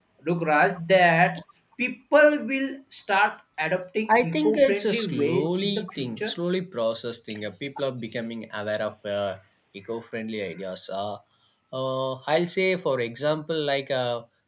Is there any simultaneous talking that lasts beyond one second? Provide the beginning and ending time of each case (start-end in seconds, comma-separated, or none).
4.2-6.3